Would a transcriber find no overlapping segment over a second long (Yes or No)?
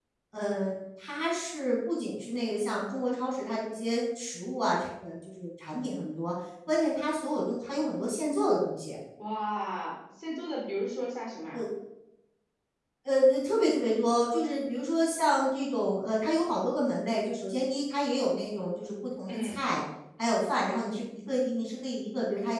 Yes